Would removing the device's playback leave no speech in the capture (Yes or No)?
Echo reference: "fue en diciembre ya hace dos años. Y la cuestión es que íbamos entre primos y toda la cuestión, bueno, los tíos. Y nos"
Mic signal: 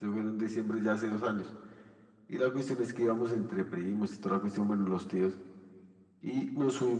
Yes